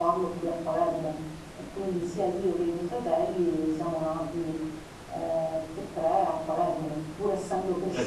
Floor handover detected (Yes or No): Yes